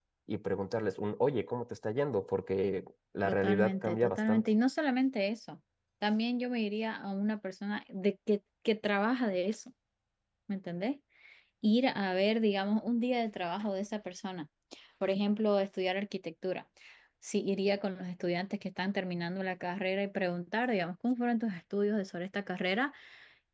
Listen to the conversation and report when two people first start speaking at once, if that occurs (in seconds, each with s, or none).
3.2 s